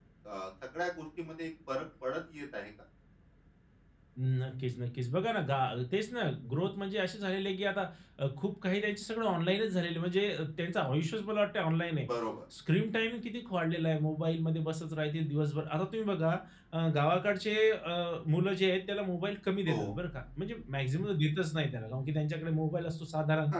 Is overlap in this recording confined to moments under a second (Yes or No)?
Yes